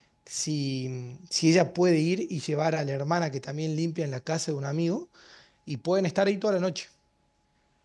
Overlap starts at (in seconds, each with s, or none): none